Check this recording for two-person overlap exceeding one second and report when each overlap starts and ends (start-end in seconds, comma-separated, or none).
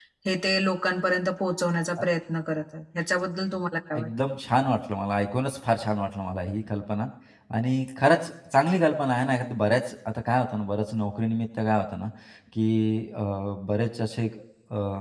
none